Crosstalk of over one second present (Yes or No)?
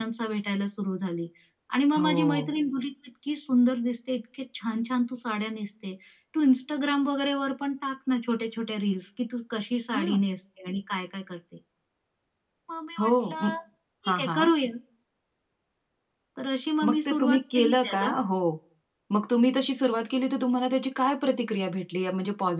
Yes